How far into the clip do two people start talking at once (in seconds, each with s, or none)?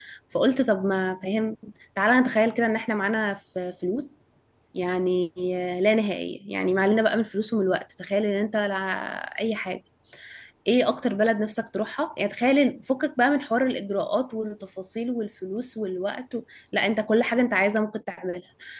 none